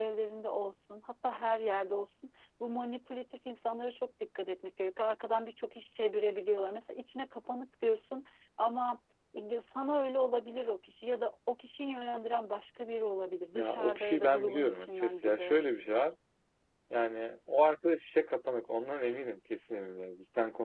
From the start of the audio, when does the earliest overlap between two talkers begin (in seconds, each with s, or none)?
13.5 s